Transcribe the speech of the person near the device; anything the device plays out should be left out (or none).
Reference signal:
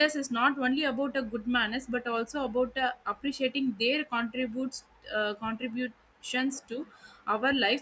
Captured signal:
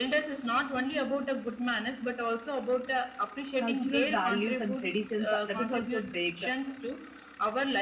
cultural values and traditions uh, that is also breaked